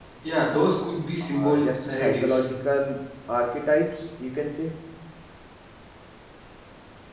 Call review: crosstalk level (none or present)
present